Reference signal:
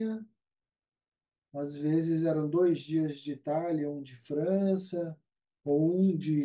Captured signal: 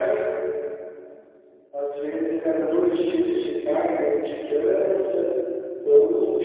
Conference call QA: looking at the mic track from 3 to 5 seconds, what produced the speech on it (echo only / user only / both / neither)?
echo only